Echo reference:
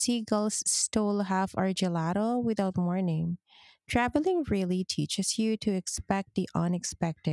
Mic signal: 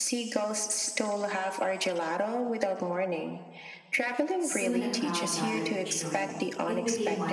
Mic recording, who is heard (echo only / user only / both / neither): both